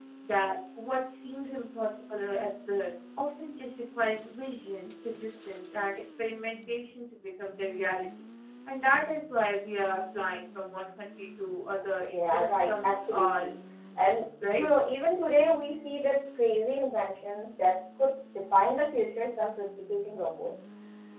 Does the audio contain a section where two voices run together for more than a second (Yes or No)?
Yes